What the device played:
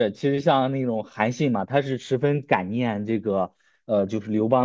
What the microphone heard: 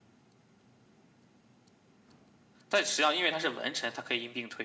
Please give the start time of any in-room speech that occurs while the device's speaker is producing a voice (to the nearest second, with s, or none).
3 s